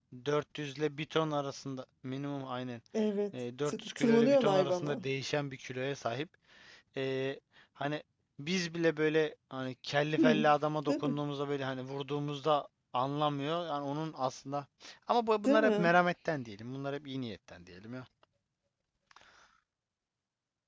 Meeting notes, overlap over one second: present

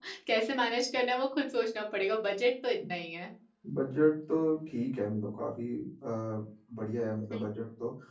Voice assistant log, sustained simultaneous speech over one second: none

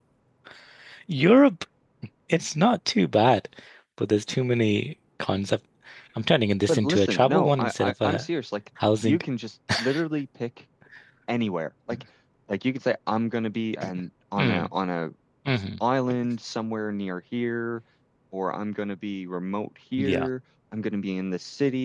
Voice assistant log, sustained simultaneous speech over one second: present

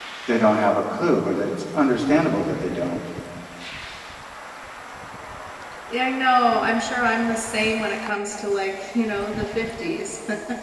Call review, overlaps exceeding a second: none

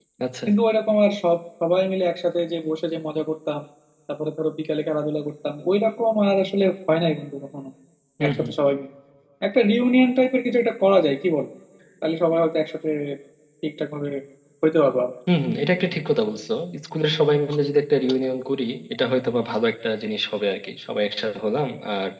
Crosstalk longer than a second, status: none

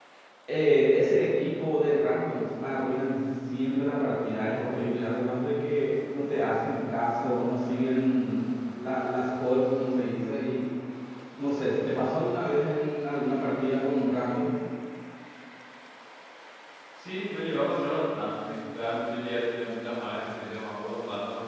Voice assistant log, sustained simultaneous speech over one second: none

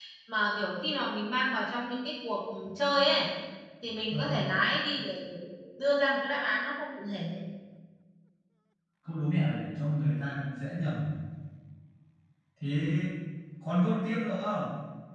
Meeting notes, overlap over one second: none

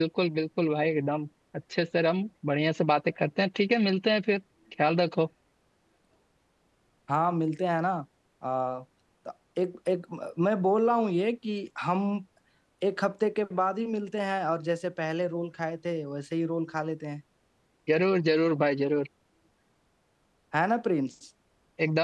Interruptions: none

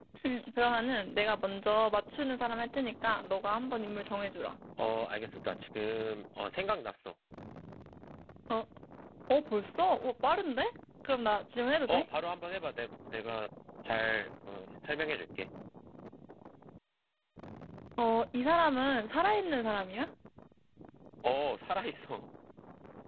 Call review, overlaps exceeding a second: none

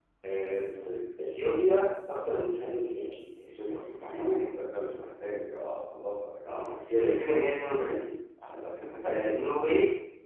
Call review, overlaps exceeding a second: none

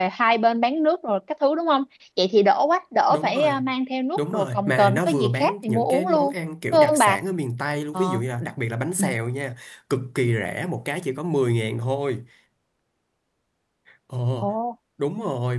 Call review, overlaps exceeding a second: present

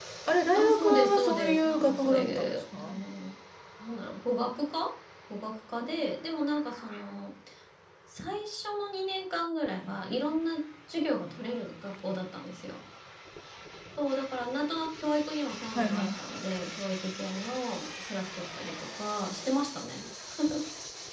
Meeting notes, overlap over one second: present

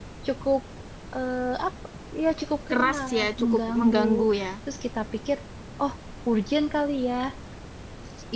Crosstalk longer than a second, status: present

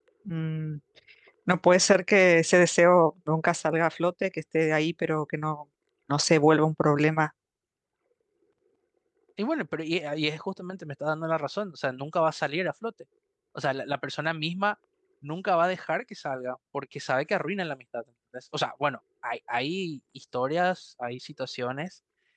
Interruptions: none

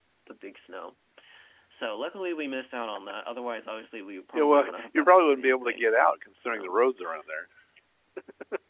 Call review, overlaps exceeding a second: present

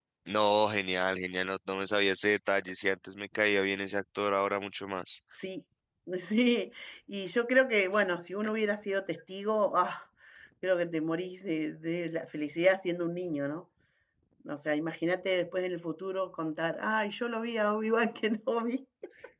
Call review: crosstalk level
none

